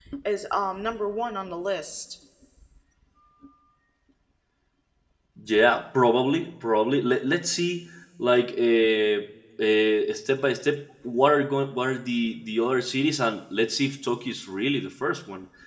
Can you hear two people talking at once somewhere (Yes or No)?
No